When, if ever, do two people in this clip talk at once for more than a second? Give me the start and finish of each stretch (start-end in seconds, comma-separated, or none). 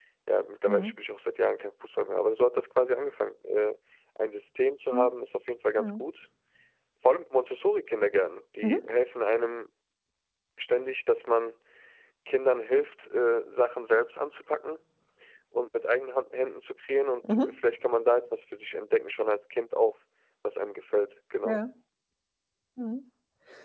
none